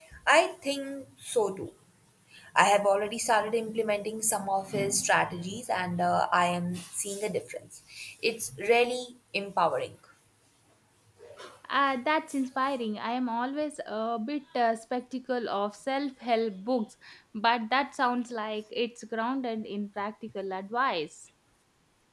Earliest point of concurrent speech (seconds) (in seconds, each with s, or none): none